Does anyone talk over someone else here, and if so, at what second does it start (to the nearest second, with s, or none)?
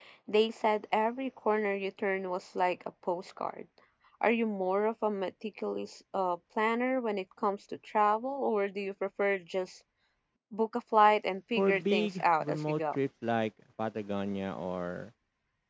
12 s